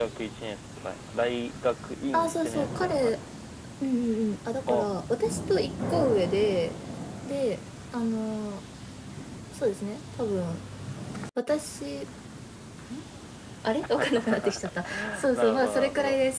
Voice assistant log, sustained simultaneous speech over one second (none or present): present